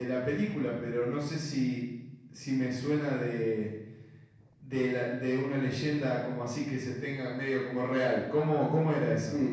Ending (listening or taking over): taking over